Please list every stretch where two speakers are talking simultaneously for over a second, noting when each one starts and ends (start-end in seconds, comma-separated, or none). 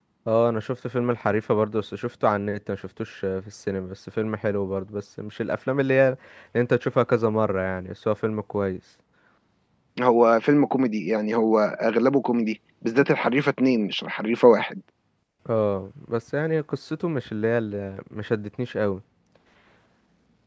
none